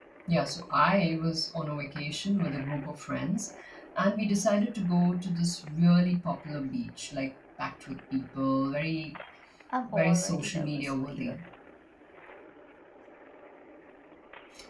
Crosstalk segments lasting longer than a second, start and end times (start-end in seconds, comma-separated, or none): 9.9-11.3